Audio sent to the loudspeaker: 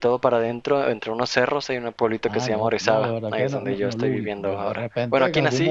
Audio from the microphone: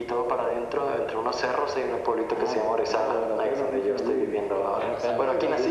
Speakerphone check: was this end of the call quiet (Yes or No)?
No